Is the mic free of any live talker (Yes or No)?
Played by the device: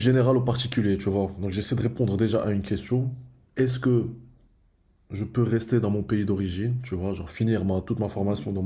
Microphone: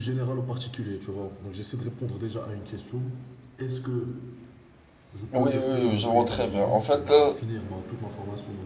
No